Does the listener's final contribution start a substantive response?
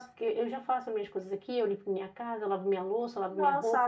Yes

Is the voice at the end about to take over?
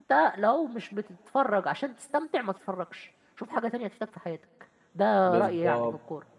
Yes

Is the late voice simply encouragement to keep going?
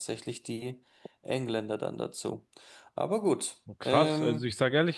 No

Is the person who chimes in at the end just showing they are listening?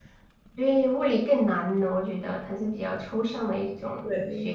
No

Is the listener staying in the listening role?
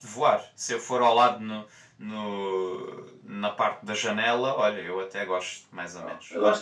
No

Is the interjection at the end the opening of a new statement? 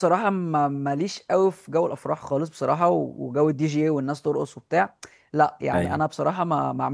No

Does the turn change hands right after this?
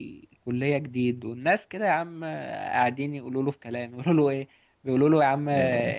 No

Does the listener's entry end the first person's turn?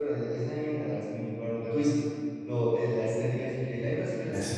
No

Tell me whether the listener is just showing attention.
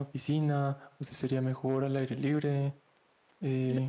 No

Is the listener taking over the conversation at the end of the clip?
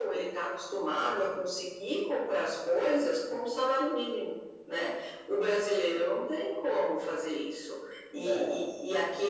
No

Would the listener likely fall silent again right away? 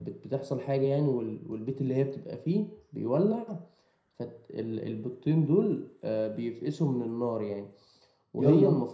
Yes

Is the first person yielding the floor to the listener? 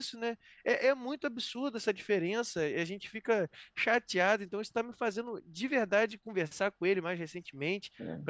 No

